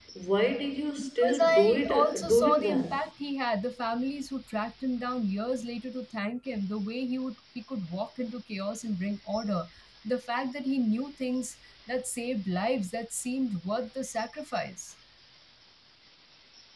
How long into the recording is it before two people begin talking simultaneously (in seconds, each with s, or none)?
1.0 s